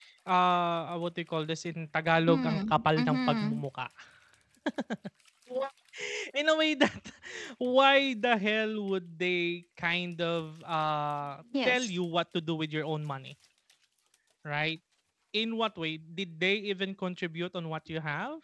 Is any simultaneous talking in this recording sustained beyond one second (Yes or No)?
Yes